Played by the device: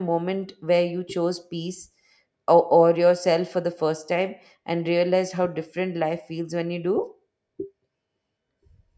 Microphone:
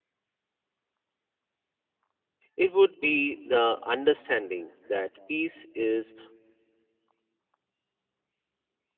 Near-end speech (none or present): present